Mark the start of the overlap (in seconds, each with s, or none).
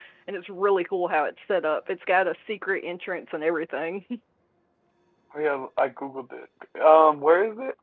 none